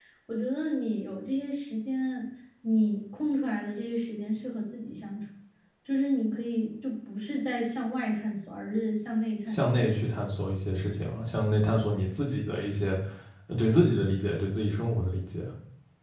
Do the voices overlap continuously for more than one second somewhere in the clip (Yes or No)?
No